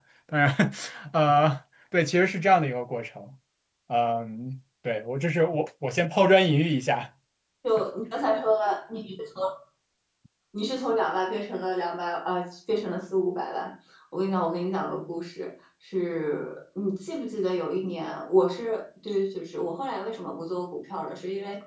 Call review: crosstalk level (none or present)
none